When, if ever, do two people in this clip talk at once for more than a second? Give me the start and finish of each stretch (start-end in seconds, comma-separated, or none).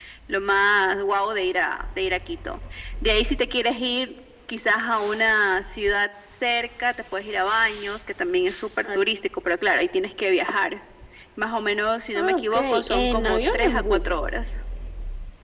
12.1-14.0